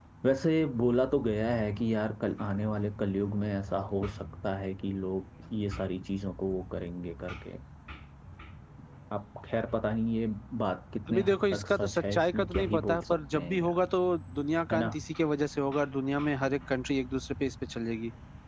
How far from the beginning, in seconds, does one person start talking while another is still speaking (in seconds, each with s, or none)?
11.1 s